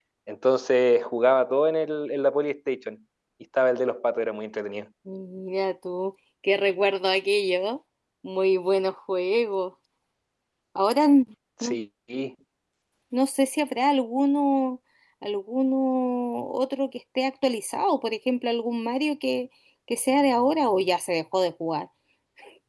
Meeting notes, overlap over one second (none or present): none